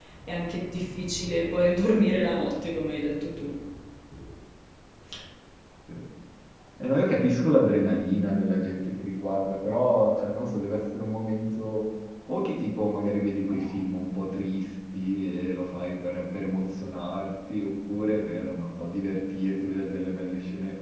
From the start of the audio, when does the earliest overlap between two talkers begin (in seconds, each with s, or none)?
none